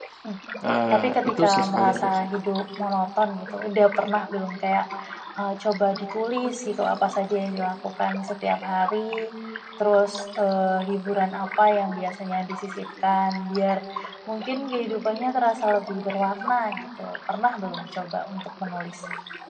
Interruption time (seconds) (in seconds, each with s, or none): 0.9 s